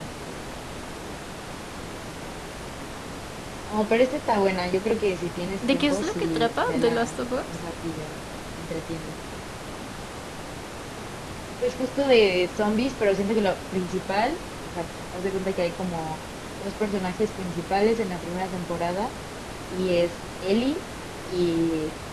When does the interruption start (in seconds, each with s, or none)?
5.6 s